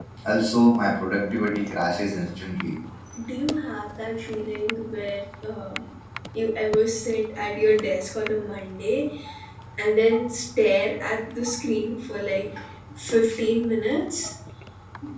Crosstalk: none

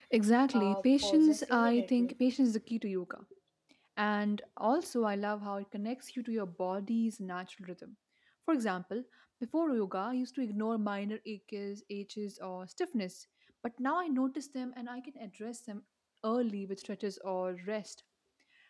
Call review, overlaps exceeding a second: present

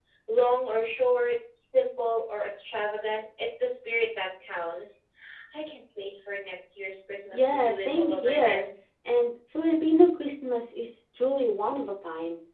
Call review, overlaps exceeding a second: present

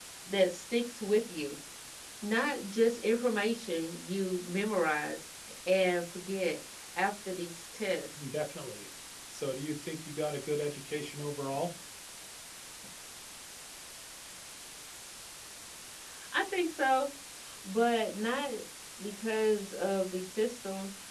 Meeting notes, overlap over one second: none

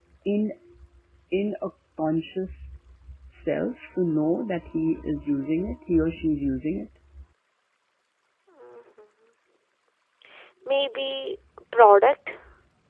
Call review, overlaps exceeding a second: none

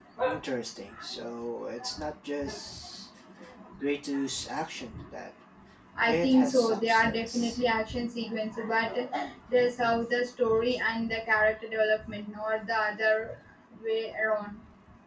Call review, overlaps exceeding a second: present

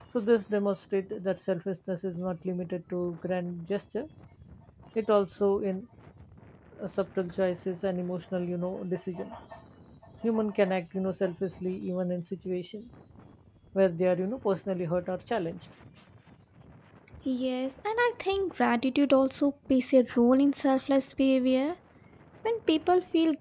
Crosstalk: none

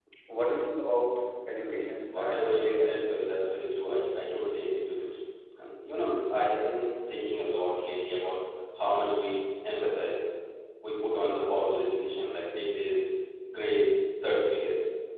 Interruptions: present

